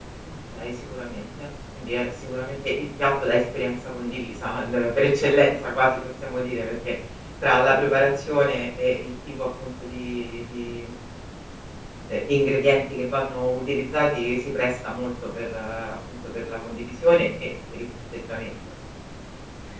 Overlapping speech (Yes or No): No